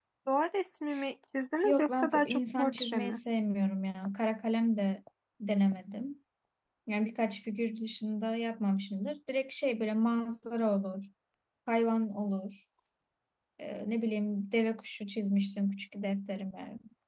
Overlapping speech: Yes, from 1.6 s

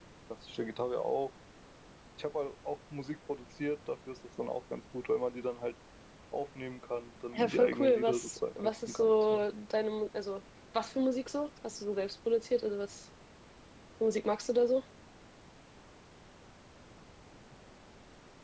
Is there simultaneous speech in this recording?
Yes, from 7.3 s

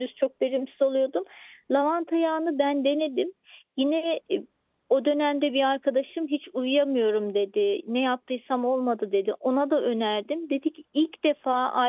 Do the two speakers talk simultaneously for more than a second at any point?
No

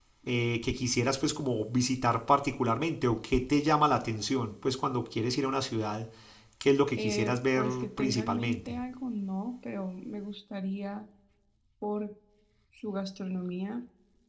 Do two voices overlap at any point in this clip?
Yes, from 7.0 s

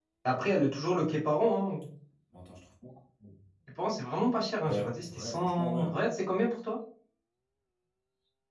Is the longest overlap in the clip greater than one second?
Yes, from 4.6 s

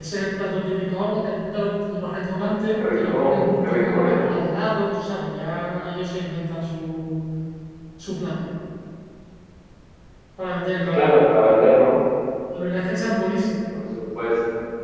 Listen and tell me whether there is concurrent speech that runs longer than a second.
Yes, from 3.0 s

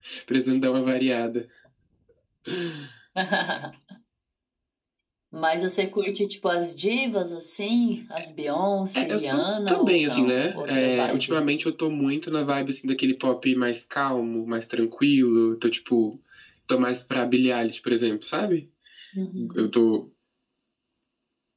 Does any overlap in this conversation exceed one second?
Yes, from 8.9 s

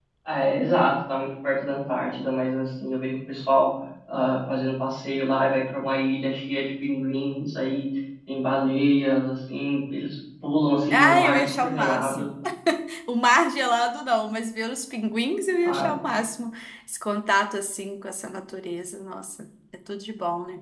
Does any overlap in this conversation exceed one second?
Yes, from 10.9 s

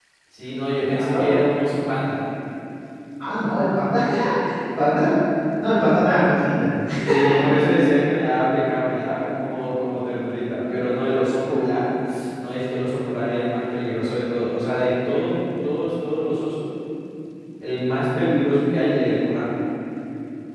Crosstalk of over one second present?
No

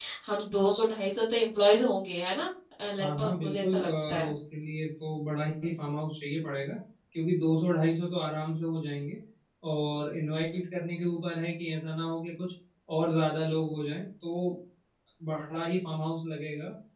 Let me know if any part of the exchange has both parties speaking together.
Yes, from 3.0 s

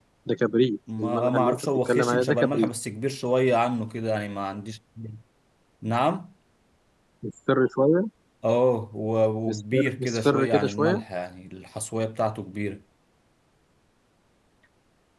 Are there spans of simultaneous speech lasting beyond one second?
Yes, from 1.0 s

